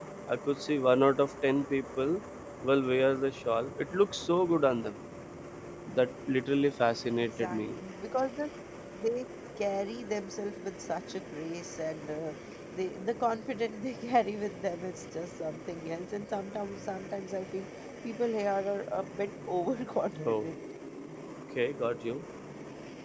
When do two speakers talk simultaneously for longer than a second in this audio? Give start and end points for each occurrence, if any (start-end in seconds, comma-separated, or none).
none